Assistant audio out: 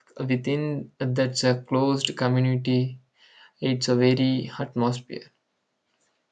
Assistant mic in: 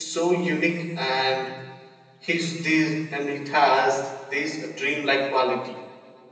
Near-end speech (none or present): present